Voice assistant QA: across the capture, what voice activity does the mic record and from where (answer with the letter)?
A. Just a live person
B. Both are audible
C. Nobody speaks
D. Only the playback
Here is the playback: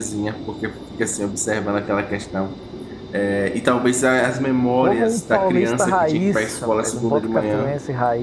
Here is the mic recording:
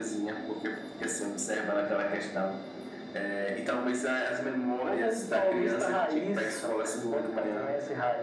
D